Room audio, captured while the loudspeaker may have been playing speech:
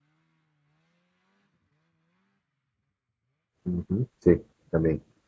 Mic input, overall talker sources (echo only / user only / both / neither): user only